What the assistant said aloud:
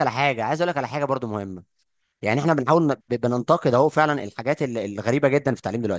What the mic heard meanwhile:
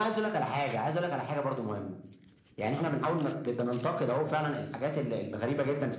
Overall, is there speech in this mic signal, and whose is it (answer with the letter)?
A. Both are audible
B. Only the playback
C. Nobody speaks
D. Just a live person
B